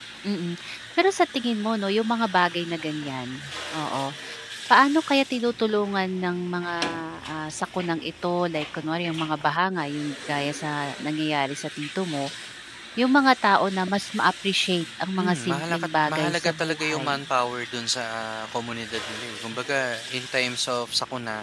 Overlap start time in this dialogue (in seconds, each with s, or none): 15.2 s